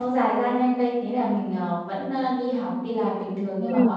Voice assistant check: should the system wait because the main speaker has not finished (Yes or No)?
Yes